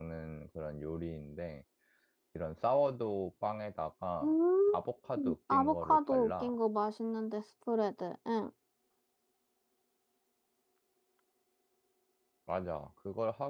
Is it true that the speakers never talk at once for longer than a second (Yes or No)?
No